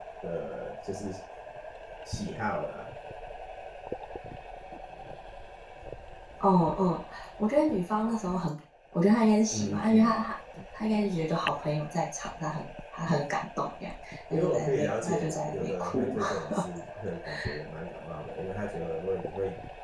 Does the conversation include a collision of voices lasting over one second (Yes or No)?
Yes